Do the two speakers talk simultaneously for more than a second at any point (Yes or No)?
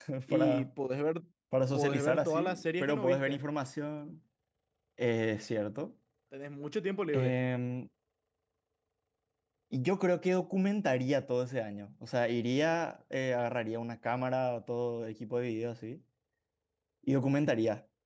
Yes